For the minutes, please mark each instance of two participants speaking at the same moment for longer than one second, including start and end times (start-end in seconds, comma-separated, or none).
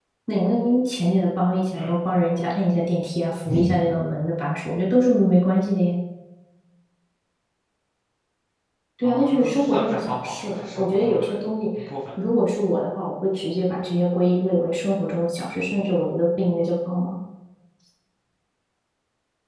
9.0-11.3